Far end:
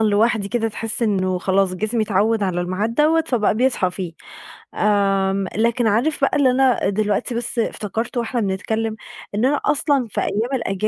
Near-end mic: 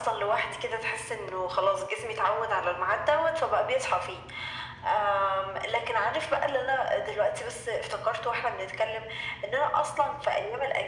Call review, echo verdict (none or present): present